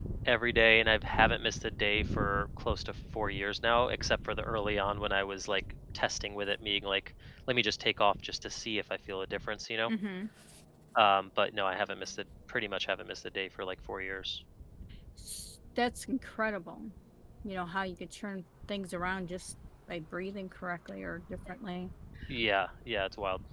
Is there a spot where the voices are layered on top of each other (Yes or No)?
No